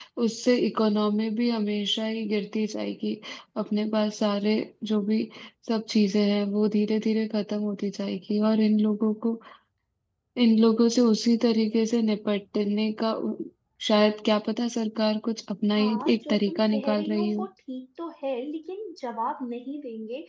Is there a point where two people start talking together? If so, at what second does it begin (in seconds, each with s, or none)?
15.8 s